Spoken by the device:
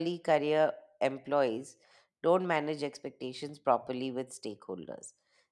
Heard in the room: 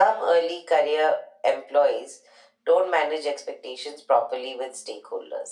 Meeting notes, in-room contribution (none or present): none